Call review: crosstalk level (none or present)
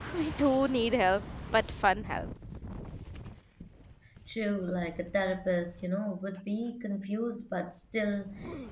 none